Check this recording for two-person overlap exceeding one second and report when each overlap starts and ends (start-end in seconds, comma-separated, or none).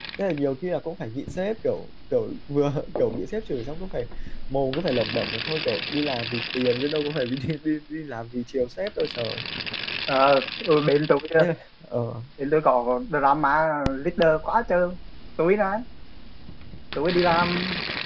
none